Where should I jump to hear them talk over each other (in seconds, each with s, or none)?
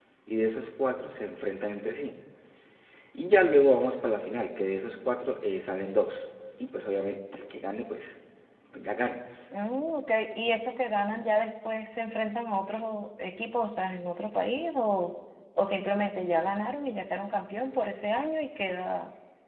none